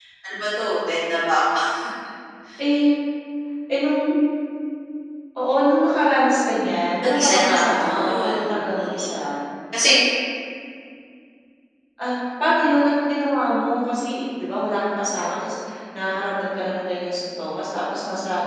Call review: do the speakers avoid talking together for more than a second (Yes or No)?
No